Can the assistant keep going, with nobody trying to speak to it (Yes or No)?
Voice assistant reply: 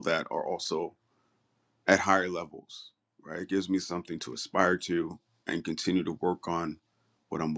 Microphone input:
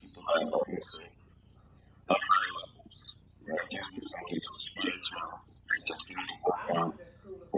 No